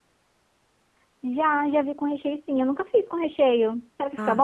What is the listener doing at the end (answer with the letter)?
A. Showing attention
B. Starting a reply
B